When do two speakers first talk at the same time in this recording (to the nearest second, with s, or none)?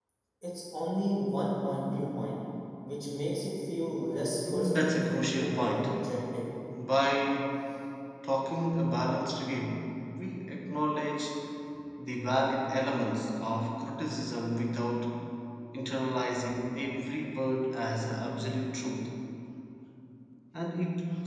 4 s